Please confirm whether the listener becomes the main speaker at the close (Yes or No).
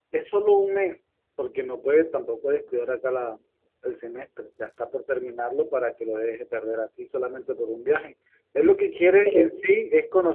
No